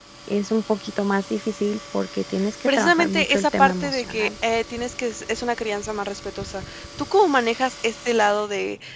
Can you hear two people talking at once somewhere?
Yes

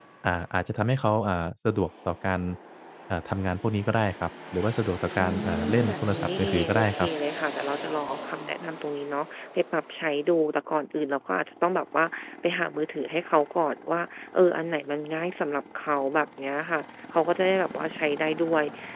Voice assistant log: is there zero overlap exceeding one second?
No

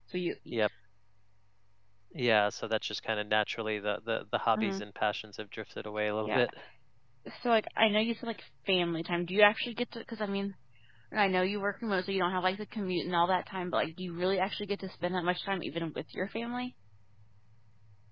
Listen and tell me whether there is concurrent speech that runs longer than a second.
No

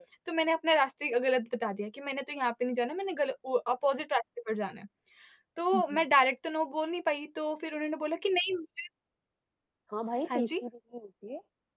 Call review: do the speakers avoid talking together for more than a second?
Yes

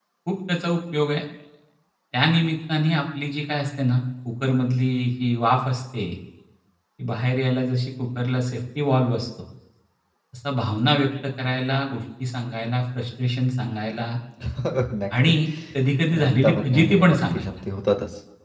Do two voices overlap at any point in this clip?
Yes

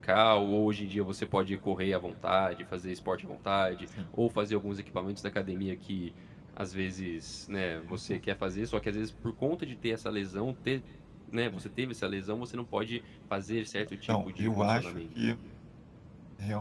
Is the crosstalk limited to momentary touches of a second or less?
No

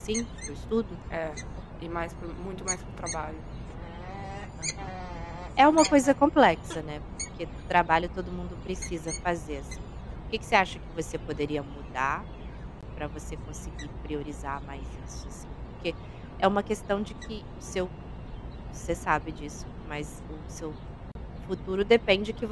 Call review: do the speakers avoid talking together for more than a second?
Yes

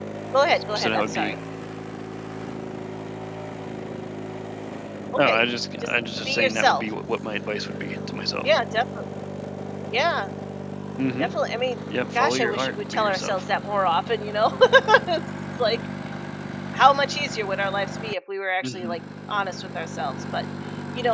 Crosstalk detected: Yes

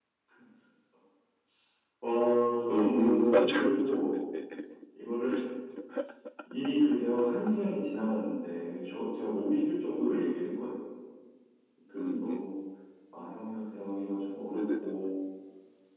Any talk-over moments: Yes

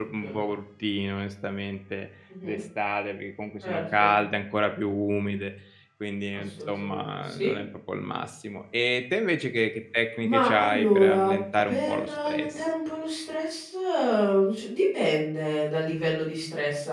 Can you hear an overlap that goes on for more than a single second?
Yes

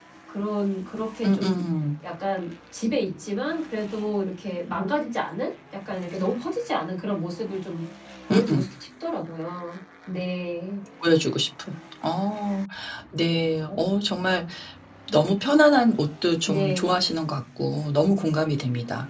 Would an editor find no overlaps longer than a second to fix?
Yes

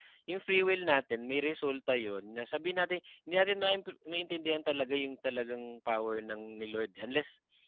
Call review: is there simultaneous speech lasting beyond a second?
No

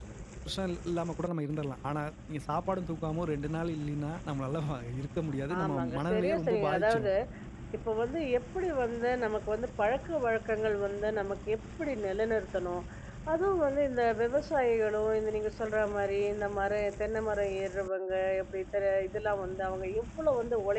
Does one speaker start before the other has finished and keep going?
Yes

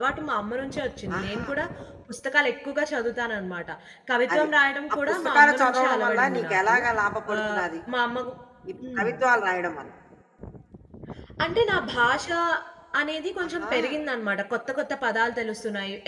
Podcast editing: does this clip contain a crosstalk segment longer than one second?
Yes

